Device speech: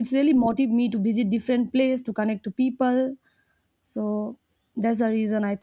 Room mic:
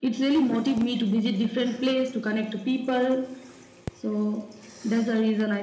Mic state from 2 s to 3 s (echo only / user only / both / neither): echo only